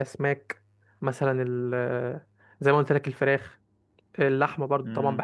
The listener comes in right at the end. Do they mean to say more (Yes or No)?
No